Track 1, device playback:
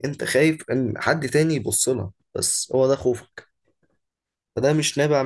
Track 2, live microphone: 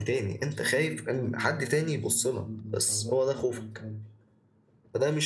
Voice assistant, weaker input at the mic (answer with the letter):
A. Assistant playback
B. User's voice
B